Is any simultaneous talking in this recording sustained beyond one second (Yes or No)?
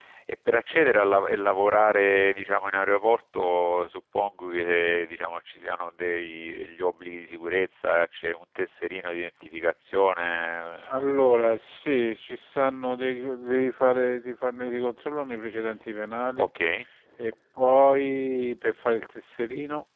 No